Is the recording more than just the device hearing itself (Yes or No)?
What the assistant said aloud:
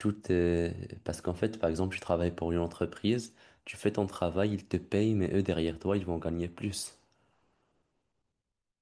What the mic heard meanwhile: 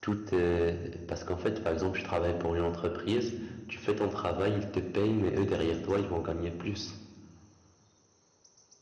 No